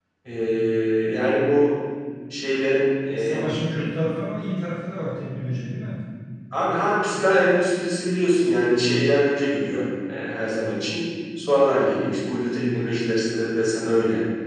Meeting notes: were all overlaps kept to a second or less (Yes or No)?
Yes